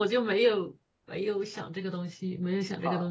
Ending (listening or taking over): taking over